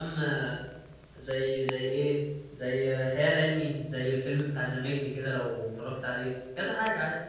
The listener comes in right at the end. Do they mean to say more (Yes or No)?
Yes